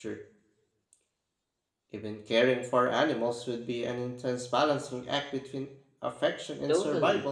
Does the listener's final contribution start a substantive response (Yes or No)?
Yes